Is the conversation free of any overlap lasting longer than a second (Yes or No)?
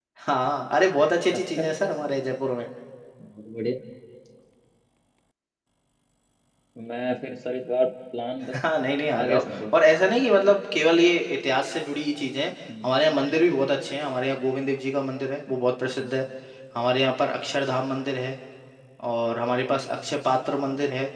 Yes